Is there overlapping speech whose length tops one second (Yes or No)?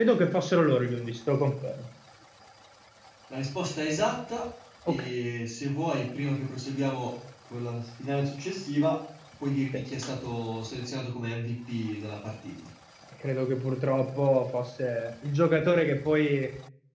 No